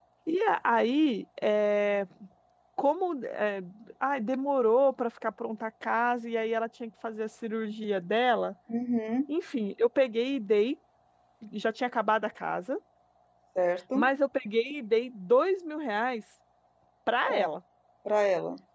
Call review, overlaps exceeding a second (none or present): none